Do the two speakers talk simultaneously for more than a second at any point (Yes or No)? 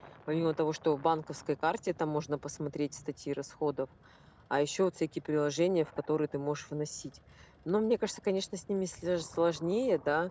No